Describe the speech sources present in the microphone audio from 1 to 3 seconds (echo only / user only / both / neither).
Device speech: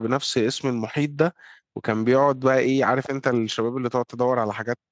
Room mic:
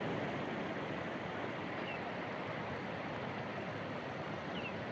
neither